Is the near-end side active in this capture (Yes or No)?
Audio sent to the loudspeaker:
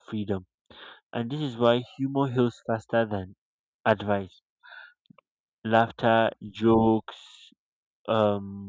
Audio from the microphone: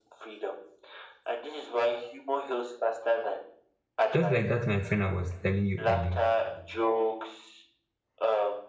Yes